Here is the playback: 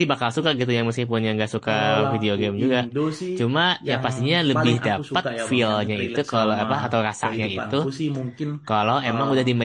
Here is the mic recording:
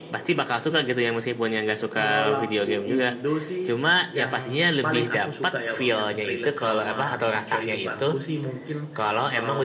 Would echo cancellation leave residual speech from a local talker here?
No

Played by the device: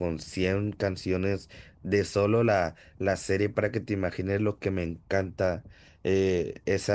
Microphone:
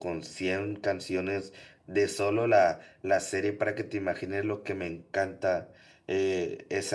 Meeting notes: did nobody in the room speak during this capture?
Yes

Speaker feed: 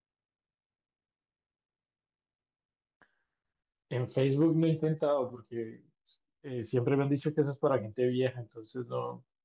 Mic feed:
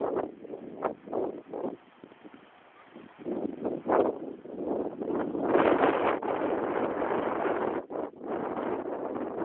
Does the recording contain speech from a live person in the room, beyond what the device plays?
No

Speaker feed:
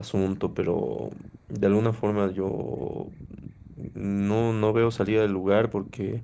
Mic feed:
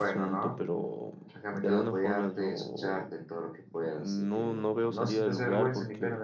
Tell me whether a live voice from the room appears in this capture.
Yes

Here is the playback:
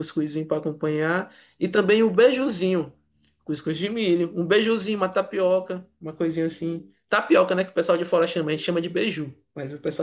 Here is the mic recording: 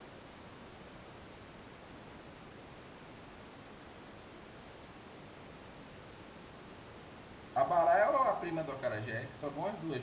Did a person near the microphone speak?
Yes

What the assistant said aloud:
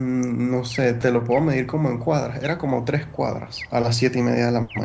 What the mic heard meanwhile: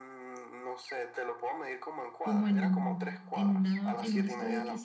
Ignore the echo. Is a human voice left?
Yes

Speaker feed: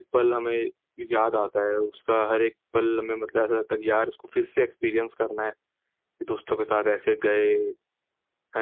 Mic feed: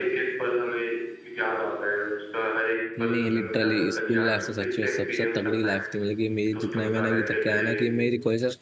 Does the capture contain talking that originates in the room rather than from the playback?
Yes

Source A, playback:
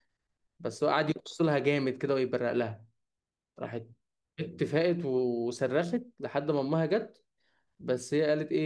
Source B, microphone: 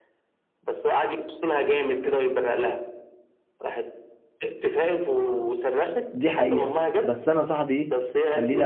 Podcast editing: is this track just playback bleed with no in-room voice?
No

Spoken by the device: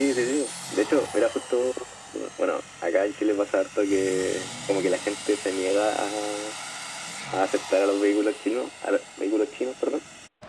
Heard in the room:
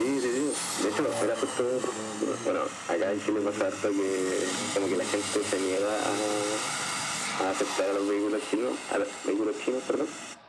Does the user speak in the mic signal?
Yes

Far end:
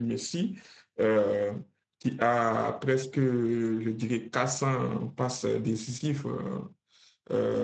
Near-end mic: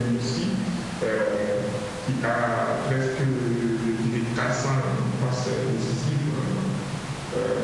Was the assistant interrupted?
No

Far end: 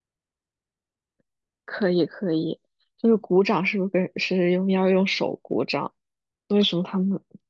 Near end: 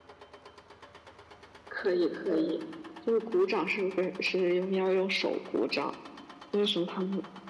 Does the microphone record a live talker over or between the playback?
Yes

